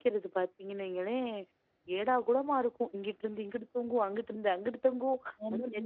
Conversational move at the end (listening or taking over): listening